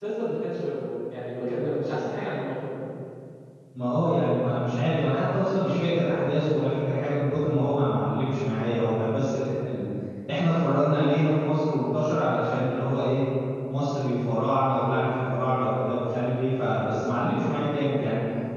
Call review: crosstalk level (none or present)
none